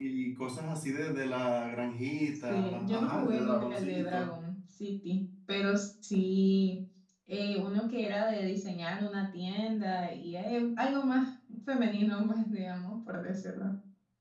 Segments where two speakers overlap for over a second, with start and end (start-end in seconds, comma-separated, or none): 2.5-4.3